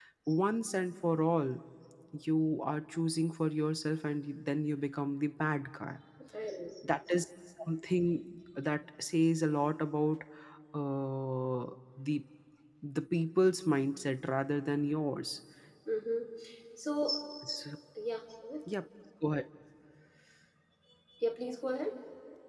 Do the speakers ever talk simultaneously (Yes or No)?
No